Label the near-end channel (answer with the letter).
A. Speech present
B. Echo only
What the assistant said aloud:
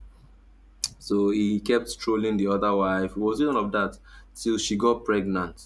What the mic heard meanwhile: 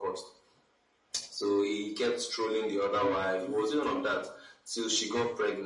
A